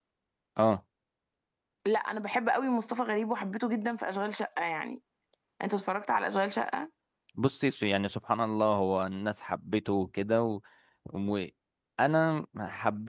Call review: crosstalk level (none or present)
none